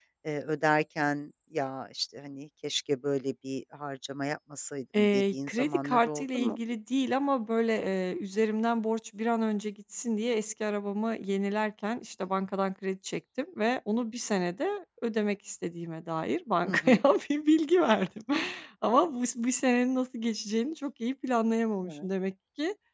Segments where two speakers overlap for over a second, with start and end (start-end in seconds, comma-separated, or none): 5.0-6.6